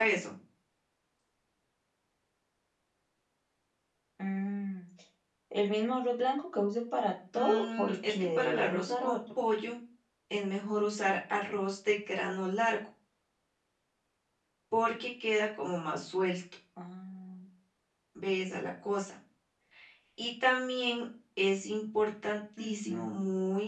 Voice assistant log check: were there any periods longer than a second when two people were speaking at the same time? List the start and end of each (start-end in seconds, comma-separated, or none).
7.3-9.2